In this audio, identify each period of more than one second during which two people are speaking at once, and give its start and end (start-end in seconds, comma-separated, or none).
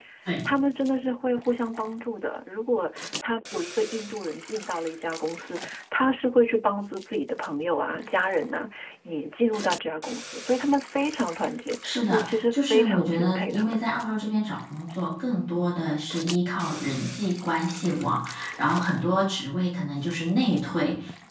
11.9-13.8